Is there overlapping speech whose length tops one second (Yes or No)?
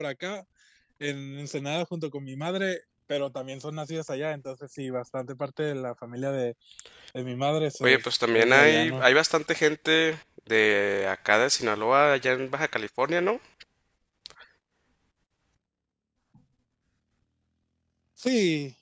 Yes